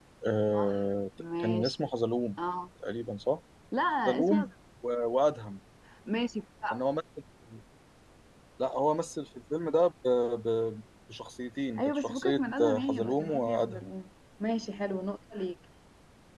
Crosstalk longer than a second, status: present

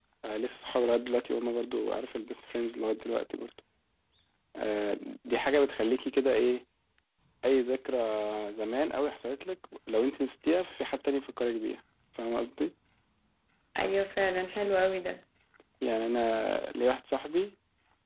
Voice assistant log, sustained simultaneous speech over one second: none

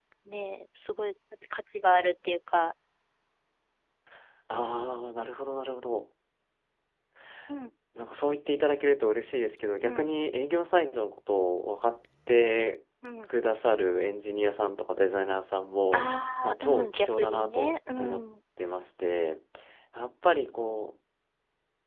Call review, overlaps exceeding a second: present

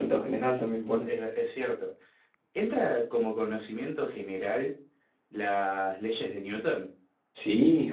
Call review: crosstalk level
none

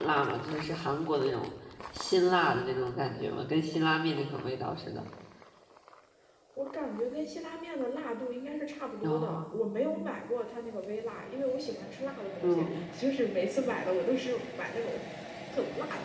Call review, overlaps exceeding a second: none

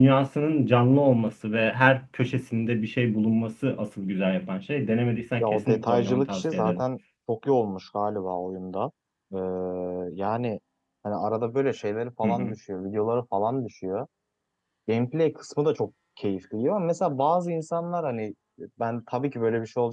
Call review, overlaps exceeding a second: present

